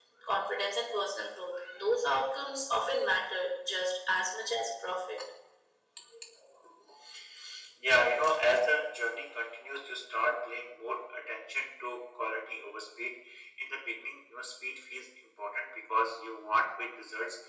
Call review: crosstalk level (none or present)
none